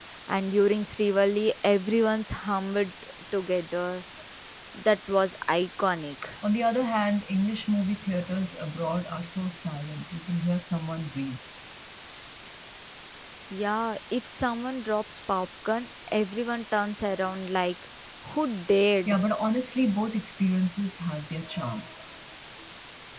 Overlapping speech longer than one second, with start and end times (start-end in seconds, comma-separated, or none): none